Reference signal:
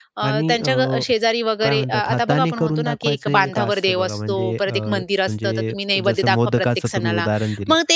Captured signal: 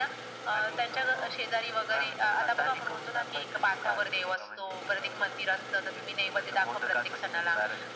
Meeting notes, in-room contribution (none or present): none